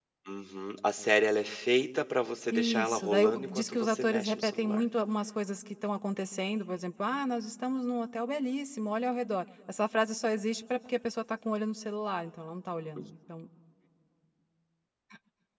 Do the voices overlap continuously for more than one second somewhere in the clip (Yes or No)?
Yes